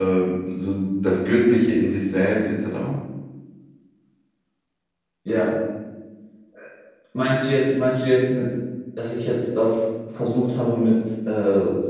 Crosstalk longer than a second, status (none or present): none